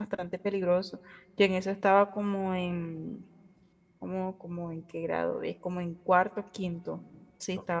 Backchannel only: Yes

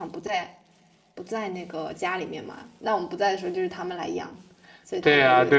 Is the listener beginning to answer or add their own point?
Yes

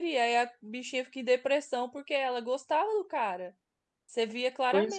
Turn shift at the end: No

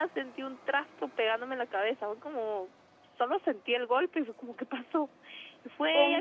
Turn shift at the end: No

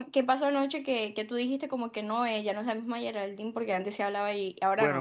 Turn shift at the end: Yes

